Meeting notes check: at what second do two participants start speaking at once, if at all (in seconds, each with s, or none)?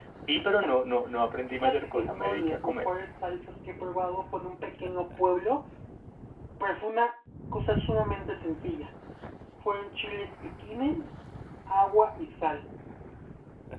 1.5 s